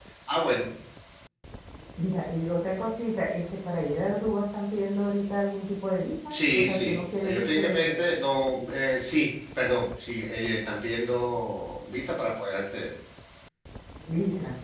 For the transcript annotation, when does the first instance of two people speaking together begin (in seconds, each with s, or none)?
6.3 s